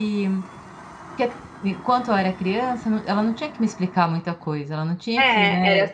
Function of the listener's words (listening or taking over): taking over